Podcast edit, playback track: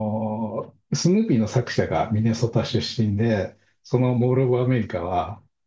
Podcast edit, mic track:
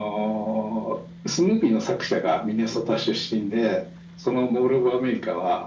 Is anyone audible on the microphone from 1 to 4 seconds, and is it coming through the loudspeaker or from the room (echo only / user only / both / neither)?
echo only